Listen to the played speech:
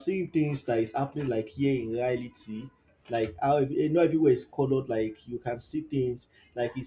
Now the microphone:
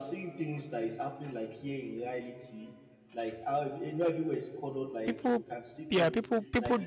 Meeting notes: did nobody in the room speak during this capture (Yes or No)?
No